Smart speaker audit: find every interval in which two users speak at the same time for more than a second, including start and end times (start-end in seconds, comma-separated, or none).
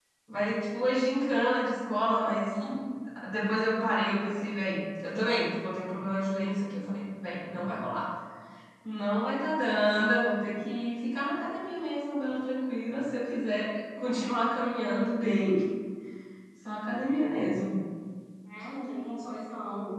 none